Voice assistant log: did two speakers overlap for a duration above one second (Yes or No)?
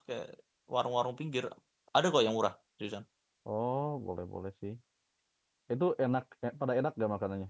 No